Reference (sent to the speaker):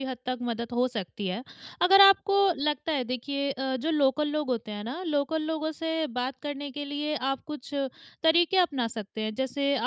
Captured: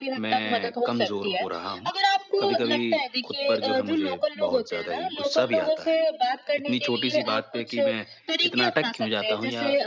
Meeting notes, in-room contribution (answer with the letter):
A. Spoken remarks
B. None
A